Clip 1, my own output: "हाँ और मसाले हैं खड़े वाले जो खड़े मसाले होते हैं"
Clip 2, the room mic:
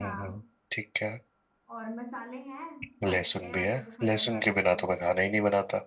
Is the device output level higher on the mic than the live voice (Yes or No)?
No